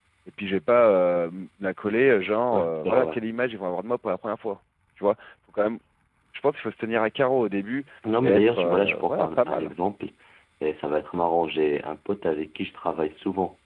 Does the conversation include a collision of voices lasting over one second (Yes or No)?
Yes